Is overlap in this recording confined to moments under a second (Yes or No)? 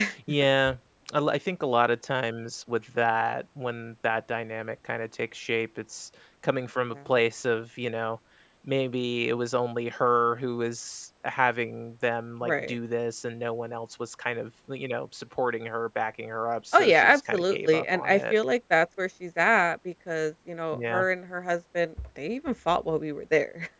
No